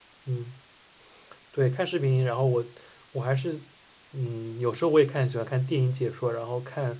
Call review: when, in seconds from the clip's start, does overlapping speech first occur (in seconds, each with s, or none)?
none